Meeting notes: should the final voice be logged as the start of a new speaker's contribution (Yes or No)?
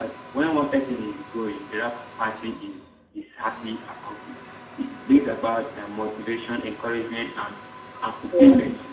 No